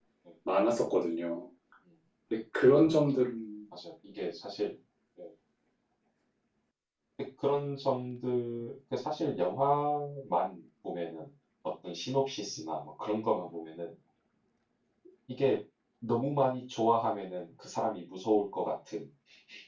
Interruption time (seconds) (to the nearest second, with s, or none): none